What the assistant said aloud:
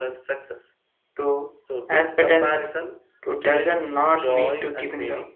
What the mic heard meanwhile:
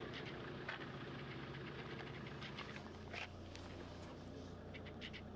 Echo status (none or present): none